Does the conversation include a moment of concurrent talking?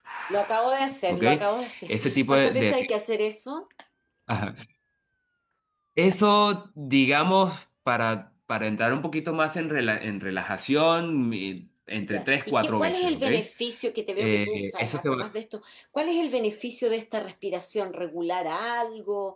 Yes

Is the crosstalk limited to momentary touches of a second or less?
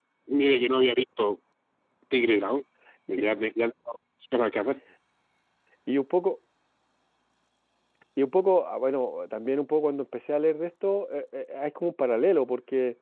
Yes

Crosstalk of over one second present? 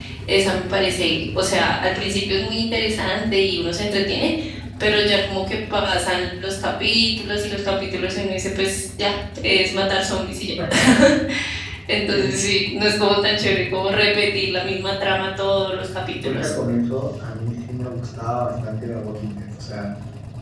No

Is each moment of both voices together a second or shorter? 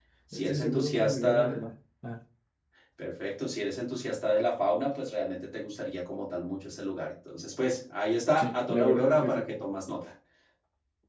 No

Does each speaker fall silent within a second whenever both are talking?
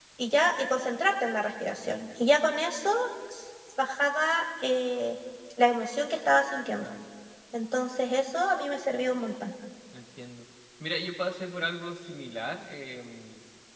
Yes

